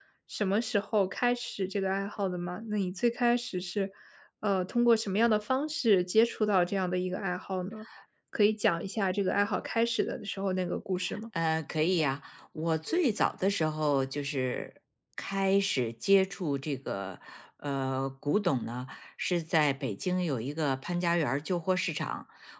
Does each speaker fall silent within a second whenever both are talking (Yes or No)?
Yes